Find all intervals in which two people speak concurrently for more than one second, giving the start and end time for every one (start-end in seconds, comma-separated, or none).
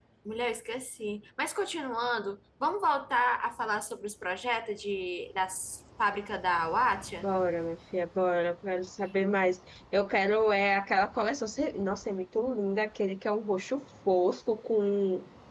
none